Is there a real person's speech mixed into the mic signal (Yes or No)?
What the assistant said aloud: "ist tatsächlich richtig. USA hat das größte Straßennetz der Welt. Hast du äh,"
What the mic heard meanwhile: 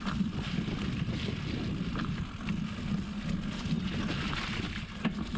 No